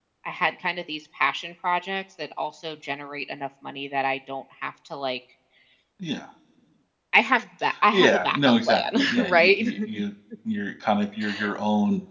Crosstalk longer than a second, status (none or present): present